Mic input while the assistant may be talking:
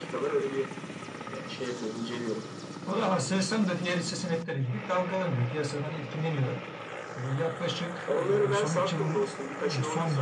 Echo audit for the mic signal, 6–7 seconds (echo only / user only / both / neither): echo only